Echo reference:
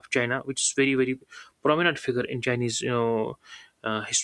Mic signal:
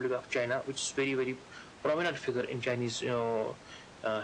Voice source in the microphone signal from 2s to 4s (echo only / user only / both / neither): echo only